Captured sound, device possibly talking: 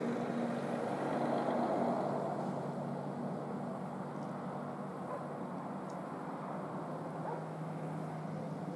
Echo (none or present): none